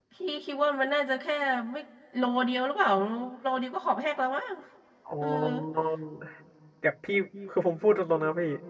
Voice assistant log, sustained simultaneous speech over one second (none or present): none